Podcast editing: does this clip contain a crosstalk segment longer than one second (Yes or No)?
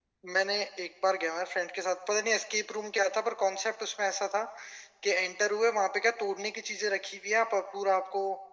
No